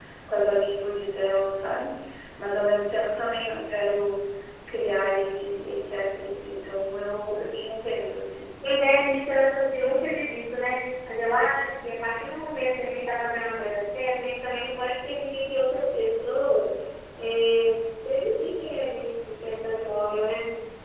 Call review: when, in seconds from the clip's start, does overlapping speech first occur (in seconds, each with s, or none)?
none